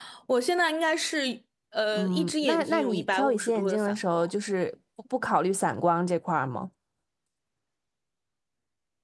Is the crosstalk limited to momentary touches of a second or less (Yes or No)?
No